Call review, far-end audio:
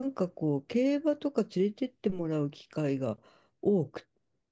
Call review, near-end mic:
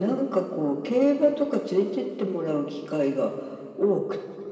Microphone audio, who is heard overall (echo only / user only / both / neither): echo only